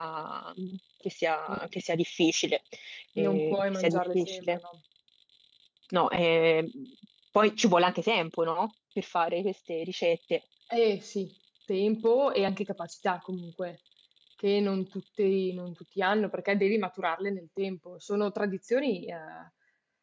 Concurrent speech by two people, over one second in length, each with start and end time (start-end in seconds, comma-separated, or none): 3.2-4.6